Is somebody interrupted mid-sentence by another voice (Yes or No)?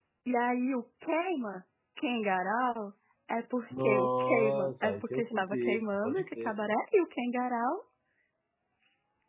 Yes